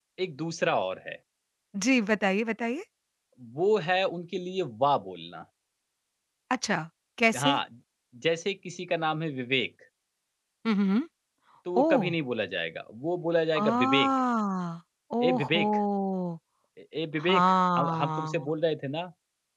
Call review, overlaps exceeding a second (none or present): present